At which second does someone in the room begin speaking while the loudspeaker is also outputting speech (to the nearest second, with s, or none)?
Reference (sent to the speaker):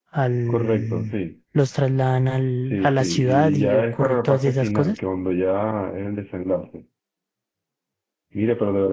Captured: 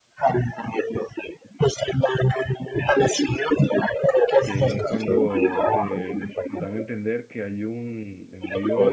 4 s